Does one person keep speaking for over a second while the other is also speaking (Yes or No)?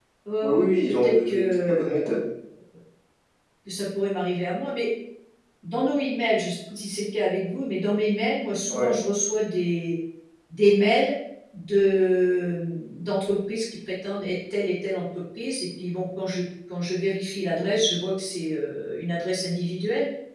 Yes